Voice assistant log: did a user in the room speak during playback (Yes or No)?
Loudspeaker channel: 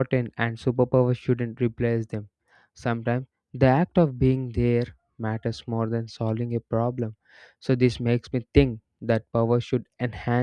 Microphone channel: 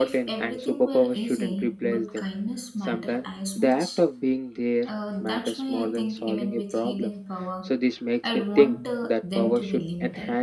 Yes